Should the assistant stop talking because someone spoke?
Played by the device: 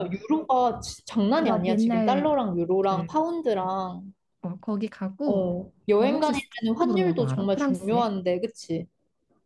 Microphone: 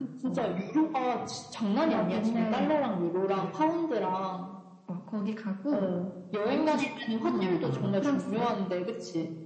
No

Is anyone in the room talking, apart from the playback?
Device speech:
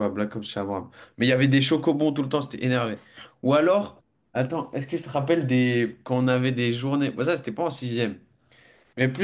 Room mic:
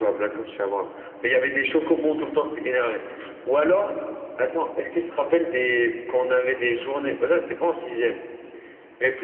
No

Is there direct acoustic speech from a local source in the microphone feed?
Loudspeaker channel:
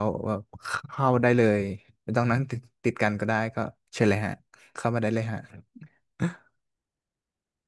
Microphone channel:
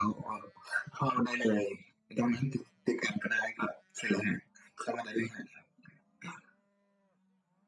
No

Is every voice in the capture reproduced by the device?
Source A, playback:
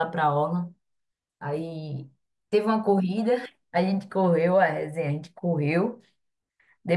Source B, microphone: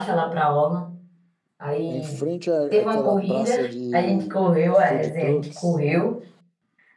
No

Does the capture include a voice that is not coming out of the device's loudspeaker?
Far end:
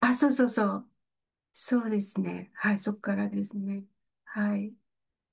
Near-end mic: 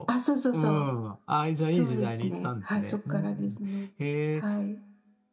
Yes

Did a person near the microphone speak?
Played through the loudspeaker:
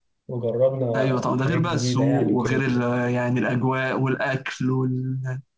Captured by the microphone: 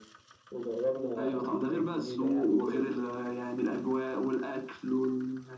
No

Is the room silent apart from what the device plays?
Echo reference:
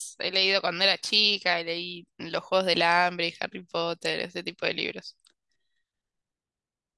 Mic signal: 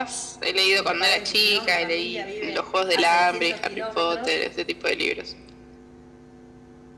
No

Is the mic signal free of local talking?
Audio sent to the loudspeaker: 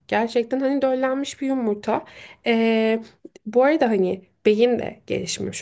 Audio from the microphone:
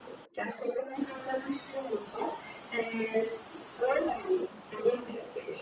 Yes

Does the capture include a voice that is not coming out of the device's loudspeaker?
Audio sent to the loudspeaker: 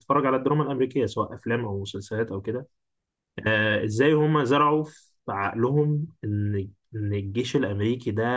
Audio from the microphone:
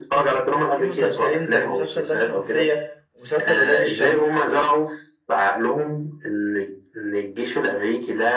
Yes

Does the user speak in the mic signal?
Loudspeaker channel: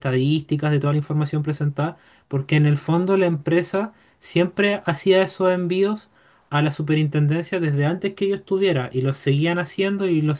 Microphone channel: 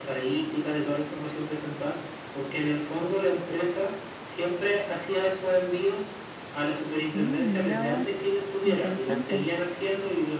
Yes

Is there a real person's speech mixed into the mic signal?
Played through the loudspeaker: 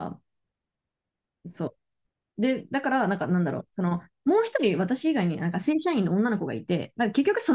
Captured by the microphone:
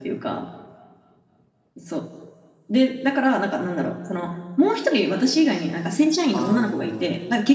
Yes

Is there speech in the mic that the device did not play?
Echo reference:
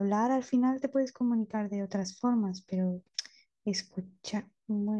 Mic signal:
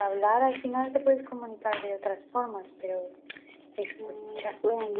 Yes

